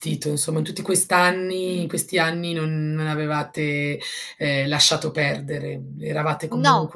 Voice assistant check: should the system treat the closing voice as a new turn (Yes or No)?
No